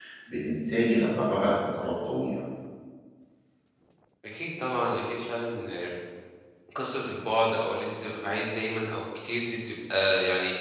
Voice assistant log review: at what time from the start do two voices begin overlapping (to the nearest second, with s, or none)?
none